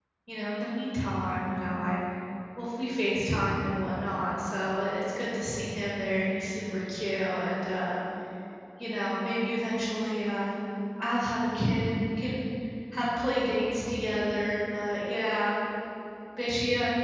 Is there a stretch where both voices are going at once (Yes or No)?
No